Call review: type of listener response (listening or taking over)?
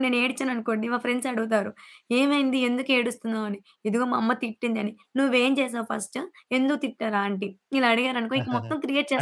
taking over